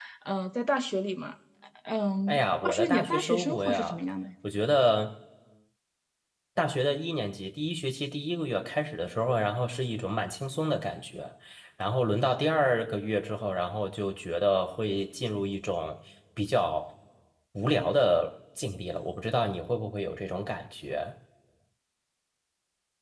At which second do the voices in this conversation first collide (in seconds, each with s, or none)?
2.3 s